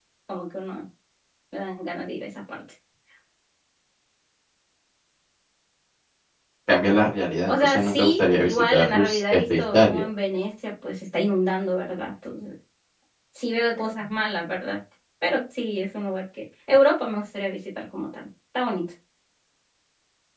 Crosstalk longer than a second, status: present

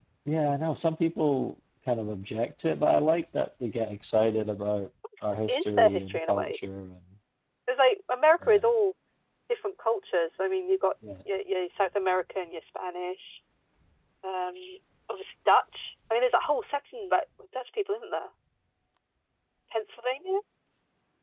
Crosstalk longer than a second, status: present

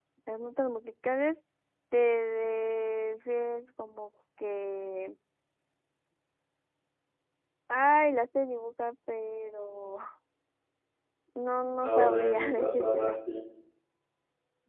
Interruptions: present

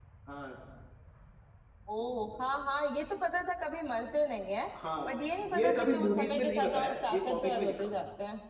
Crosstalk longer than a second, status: present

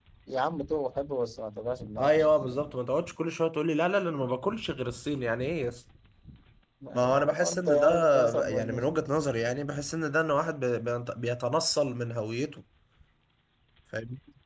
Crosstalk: present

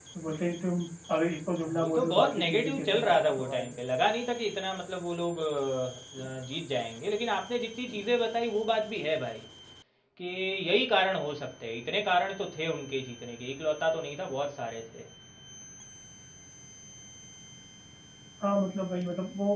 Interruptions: present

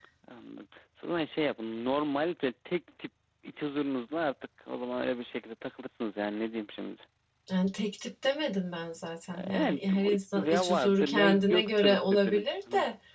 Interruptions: present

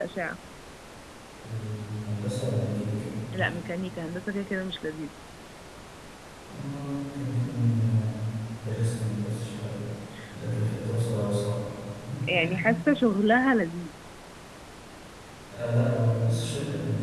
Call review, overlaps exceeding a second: none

